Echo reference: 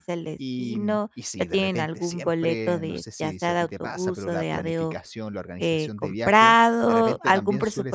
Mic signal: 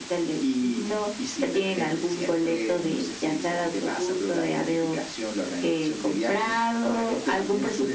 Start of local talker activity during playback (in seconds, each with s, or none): none